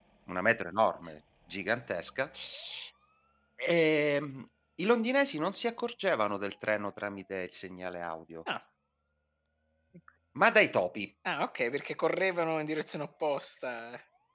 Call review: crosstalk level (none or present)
none